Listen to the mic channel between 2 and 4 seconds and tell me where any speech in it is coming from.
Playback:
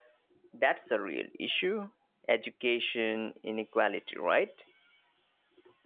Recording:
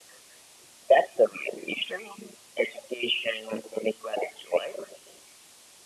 echo only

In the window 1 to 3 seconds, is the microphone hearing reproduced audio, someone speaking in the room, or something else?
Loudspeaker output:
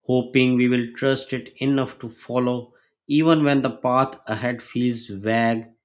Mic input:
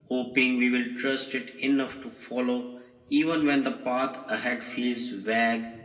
echo only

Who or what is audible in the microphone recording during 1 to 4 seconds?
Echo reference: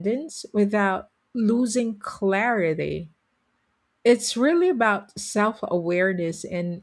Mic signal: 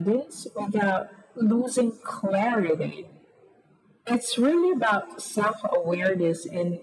echo only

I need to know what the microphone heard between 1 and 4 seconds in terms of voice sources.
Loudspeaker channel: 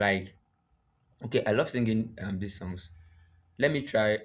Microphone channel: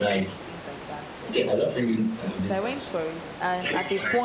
both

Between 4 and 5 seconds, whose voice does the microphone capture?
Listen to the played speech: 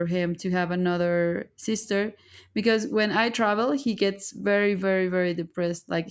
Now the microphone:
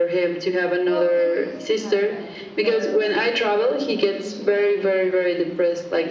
both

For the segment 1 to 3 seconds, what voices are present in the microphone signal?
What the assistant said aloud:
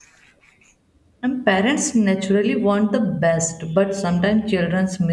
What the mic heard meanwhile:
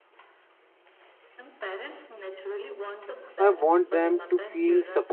echo only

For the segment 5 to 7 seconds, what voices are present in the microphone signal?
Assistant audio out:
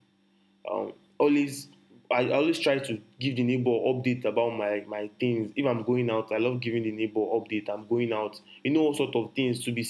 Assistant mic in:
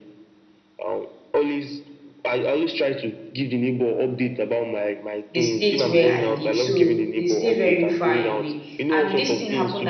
both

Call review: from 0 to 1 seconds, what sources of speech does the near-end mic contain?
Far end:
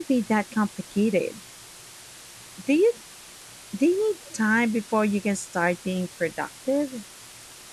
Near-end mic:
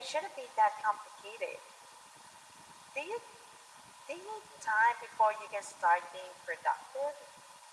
echo only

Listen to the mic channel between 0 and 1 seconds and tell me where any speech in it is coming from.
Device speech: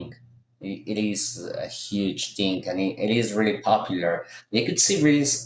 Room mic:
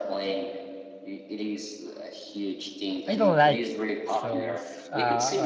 echo only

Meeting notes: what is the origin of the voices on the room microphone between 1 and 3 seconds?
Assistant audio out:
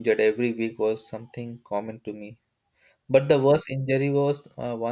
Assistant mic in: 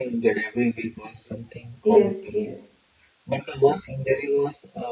both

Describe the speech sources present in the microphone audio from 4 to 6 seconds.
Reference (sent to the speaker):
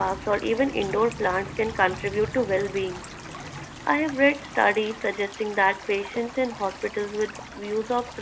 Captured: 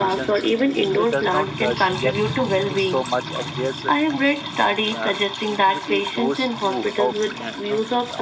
both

